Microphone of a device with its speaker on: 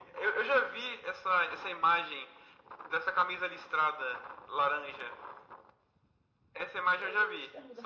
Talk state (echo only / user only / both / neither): both